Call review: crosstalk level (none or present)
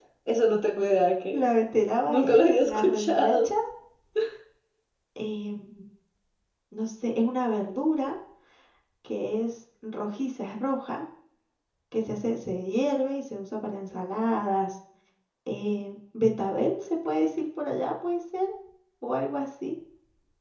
present